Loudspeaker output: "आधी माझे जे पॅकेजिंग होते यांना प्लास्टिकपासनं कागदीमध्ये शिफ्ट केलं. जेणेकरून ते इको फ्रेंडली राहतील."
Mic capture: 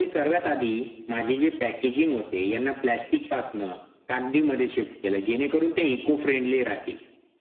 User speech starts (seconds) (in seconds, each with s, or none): none